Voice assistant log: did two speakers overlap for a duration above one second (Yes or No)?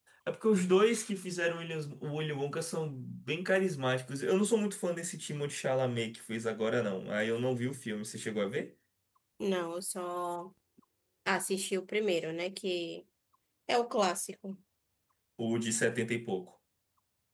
No